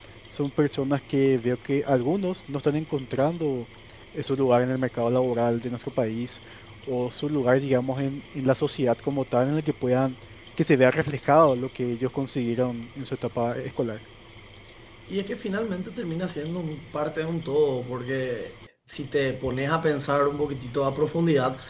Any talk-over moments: No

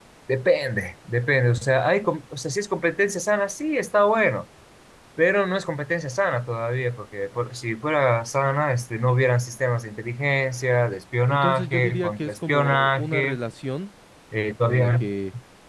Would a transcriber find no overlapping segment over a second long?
No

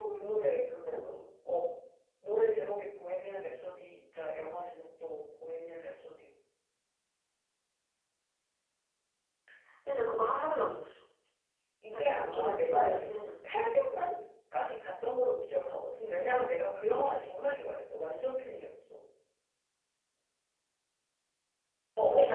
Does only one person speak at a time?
No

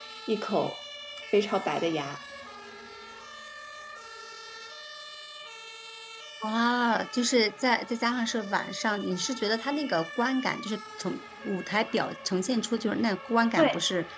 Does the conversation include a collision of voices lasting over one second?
No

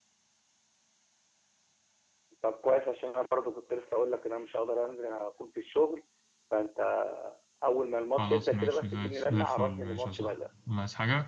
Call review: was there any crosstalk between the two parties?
Yes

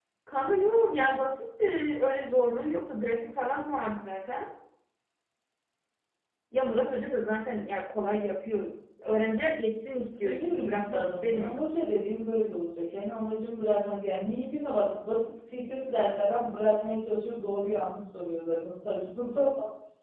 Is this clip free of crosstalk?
No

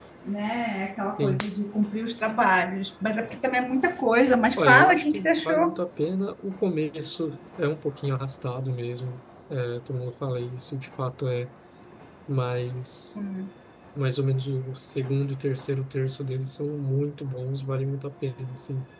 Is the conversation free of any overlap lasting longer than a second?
No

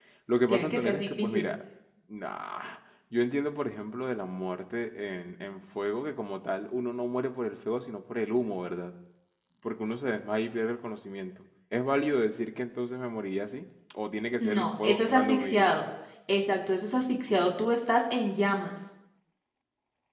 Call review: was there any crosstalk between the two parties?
Yes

